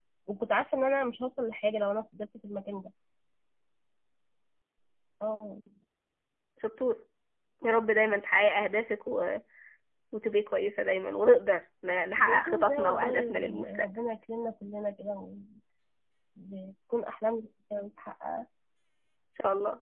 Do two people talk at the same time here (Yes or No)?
Yes